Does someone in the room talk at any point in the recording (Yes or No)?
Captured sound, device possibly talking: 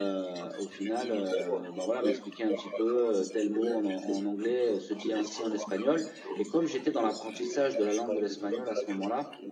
Yes